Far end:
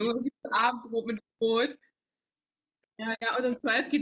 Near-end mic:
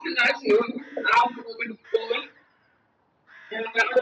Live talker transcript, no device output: none

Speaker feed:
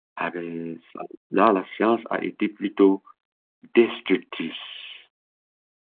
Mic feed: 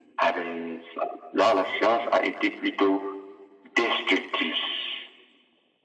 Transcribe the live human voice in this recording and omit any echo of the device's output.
none

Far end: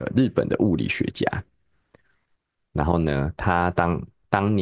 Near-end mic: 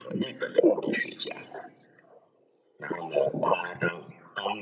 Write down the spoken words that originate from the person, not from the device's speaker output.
none

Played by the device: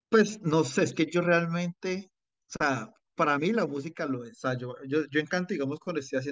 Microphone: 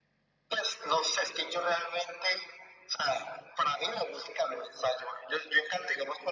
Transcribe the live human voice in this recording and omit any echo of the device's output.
none

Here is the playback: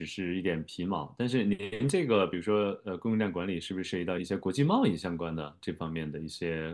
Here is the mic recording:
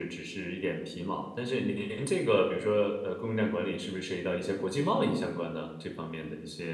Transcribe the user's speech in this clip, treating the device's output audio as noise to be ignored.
none

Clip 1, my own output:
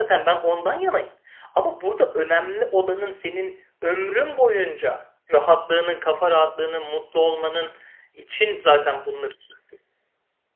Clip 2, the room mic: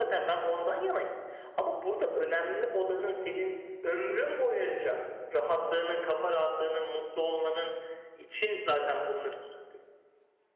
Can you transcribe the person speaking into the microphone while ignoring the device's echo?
none

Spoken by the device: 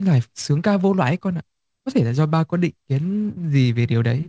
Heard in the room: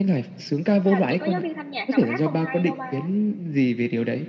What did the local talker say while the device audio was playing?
Làm gì có giáo viên thanh nhạc nào mà hát không hay đâu ba.

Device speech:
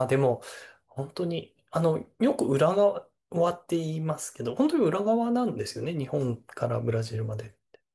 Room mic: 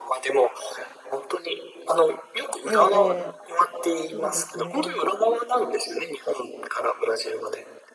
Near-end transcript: ええ、ええそうですね。

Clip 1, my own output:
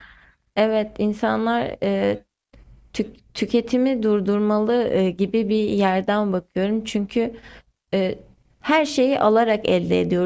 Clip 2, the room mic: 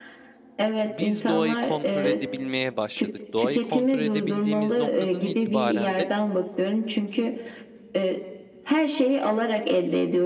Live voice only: biz doğayı kontrol edebilmeye başladık. Doğayı kontrol edebildiğimiz noktadan itibaren de

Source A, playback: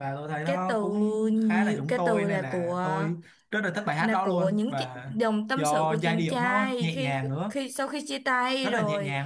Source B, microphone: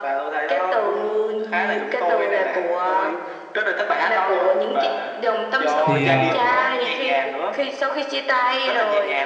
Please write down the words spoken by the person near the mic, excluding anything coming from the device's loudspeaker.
thì ờ,

